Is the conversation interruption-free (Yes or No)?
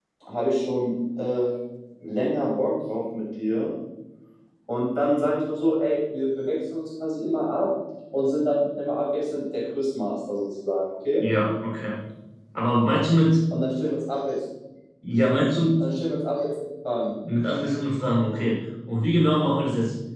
Yes